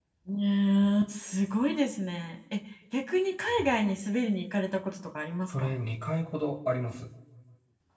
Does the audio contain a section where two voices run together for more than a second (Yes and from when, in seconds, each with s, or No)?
No